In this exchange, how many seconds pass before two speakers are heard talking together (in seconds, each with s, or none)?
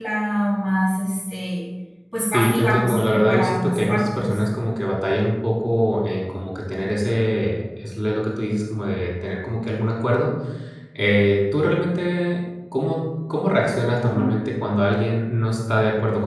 2.3 s